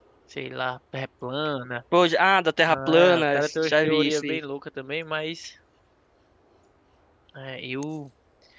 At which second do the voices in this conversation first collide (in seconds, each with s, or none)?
2.7 s